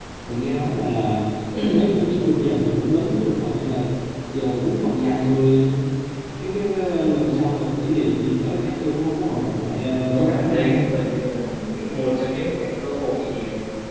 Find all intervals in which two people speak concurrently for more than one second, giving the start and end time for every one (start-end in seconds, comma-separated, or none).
9.6-10.8